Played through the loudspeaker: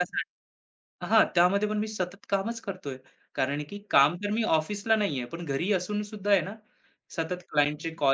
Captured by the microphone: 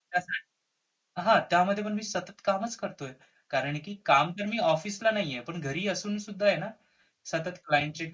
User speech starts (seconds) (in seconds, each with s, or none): none